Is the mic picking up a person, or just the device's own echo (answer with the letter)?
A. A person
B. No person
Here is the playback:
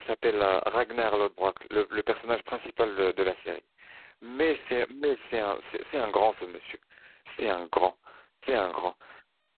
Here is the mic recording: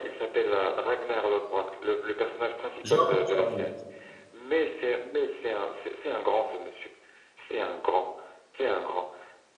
A